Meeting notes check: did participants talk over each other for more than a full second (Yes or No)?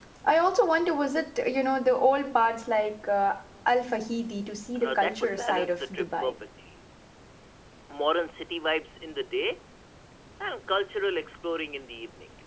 Yes